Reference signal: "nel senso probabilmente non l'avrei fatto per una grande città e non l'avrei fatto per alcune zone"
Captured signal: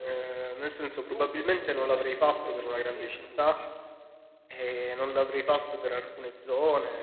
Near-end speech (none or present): present